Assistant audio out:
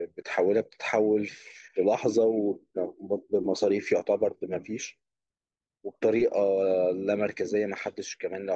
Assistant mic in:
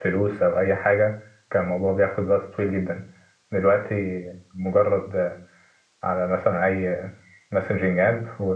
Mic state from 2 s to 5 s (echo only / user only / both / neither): user only